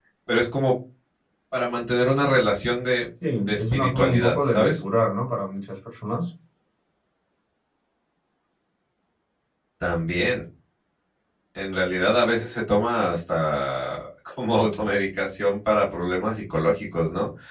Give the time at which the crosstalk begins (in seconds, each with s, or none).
3.5 s